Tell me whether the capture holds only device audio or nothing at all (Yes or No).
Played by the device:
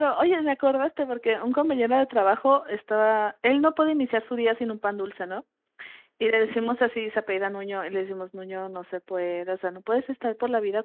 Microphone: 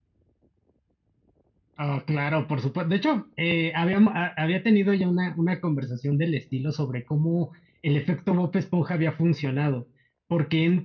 No